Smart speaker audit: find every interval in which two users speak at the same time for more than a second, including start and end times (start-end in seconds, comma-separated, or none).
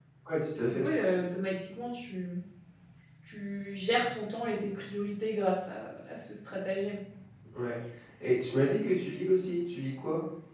none